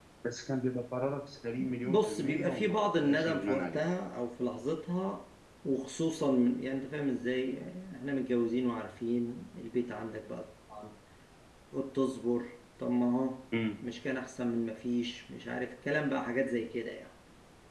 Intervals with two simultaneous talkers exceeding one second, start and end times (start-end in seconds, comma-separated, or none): 1.8-3.8